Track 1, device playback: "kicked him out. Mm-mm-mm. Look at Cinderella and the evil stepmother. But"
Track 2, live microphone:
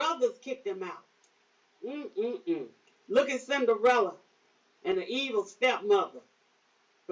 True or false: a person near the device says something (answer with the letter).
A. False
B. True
A